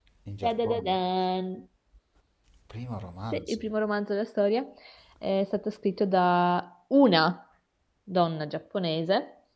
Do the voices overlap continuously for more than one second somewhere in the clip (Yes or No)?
No